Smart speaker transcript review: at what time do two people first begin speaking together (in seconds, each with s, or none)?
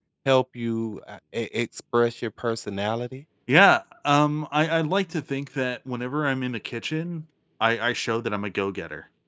none